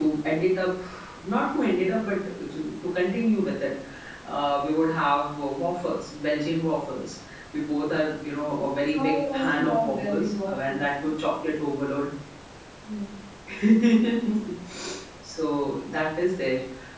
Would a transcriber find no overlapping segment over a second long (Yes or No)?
No